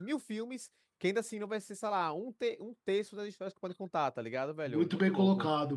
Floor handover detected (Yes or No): Yes